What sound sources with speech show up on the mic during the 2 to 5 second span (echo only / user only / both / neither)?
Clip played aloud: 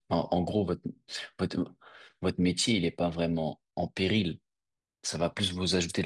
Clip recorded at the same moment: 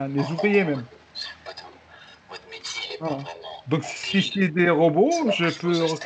both